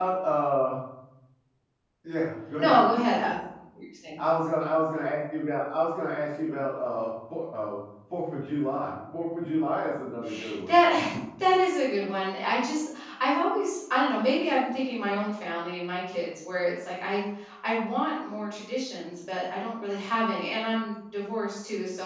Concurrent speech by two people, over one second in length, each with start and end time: none

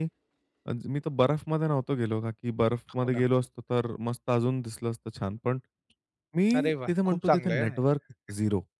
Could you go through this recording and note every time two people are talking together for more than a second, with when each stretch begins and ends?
6.6-7.8

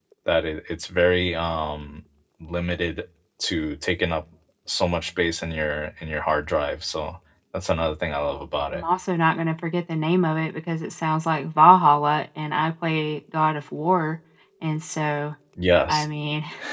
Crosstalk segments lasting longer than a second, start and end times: none

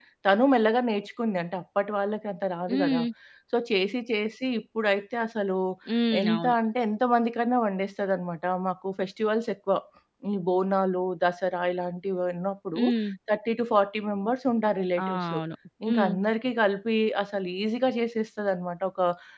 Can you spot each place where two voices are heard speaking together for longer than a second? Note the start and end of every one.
none

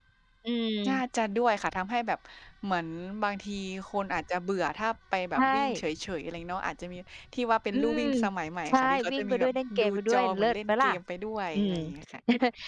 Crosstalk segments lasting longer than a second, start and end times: 8.7-10.9

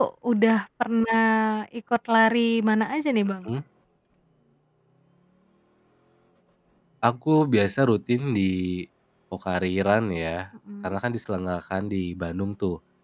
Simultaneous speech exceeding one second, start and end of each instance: none

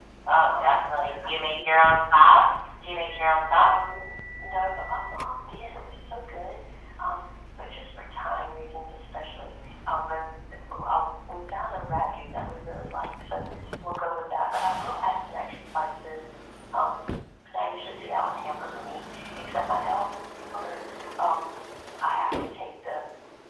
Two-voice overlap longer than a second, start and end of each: 0.5-2.2

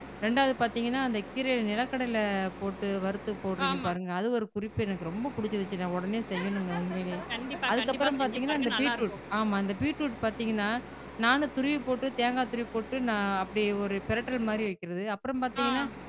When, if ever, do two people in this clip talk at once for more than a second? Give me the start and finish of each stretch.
7.7-9.2

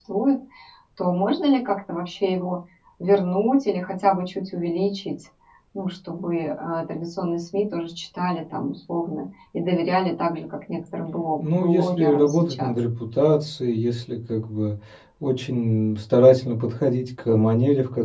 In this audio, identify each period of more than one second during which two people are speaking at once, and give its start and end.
11.4-12.7

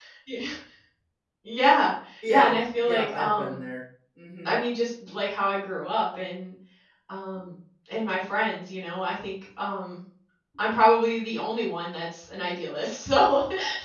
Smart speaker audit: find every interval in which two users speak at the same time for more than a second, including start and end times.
2.3-3.6

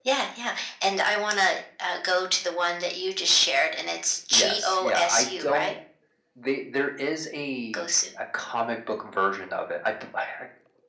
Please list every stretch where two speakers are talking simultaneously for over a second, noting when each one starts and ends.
4.3-5.7

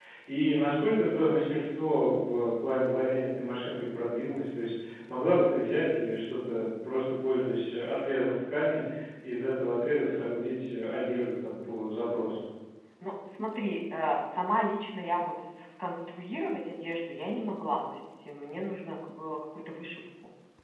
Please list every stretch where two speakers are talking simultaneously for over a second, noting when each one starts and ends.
none

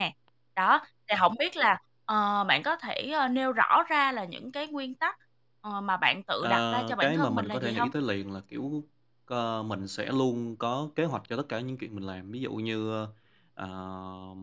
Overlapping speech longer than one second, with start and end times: 6.4-7.9

